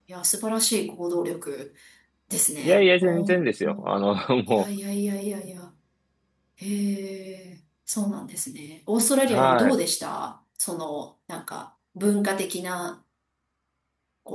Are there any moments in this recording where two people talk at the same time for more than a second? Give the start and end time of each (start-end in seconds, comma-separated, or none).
2.6-3.9